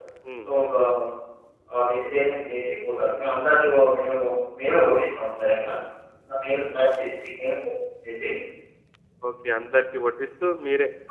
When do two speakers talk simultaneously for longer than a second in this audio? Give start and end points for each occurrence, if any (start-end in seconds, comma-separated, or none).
none